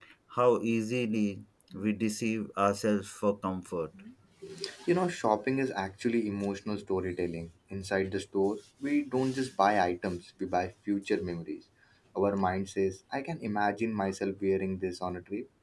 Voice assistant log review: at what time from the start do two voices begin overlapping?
none

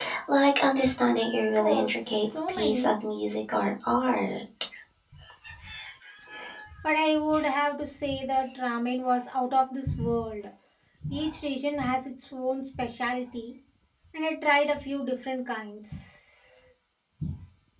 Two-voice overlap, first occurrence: 1.6 s

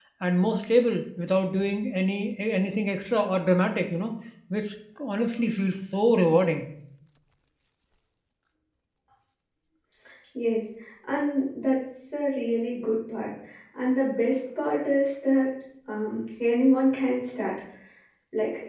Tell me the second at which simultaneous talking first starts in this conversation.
none

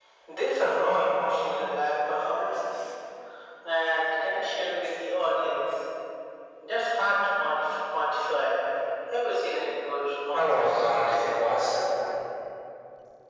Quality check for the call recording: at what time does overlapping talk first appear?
10.3 s

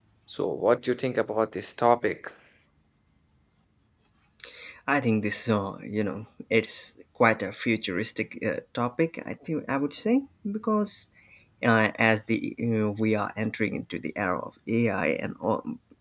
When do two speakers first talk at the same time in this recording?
none

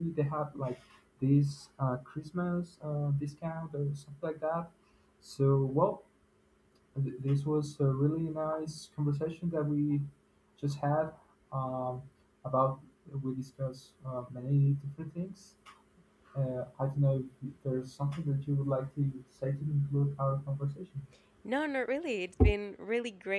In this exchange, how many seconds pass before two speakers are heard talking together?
none

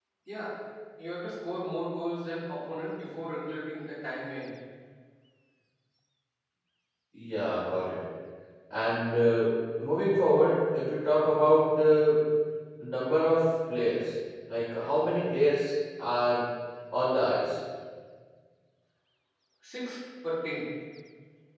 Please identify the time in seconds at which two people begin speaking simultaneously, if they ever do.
none

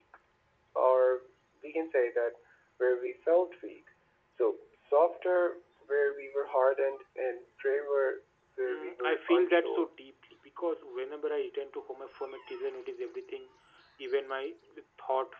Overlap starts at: 8.7 s

